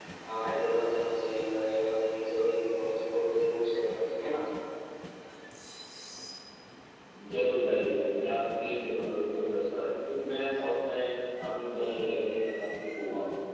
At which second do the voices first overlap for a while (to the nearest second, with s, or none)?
none